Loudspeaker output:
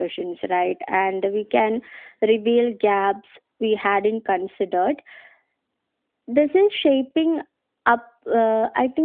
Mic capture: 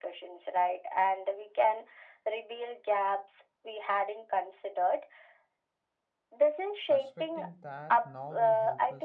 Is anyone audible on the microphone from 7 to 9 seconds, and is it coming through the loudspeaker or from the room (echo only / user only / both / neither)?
both